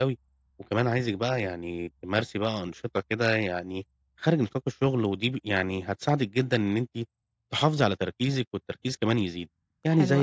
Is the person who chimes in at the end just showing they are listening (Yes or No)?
Yes